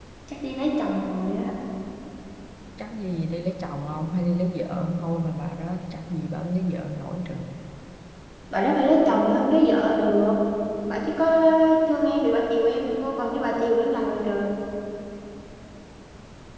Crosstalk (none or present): none